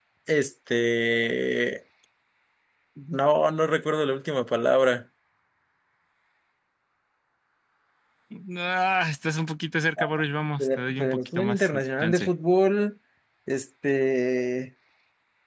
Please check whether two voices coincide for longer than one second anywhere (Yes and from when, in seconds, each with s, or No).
Yes, from 10.6 s